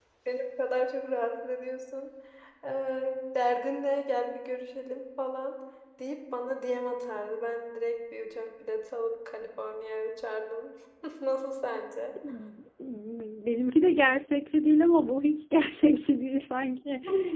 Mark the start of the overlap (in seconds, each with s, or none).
none